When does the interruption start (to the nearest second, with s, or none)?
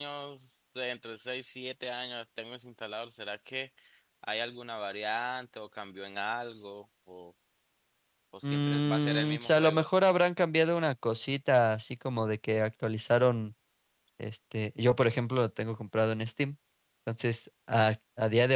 8 s